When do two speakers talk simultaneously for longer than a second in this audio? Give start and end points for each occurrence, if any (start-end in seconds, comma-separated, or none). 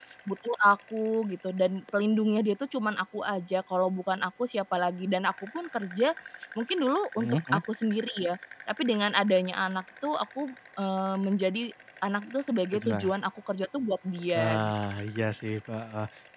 none